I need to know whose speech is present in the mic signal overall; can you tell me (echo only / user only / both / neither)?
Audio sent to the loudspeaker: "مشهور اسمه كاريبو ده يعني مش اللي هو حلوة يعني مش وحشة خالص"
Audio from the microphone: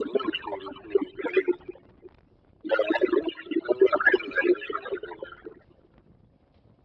echo only